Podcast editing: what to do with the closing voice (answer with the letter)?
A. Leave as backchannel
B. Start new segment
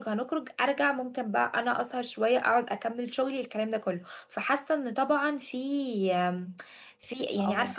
B